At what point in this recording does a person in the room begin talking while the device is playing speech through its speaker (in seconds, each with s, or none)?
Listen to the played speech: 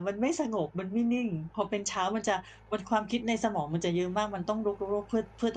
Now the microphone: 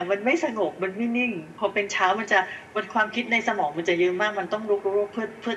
none